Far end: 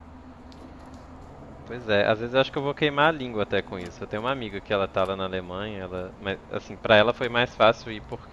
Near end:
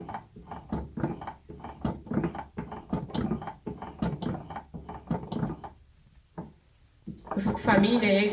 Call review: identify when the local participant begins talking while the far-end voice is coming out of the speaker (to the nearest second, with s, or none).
7 s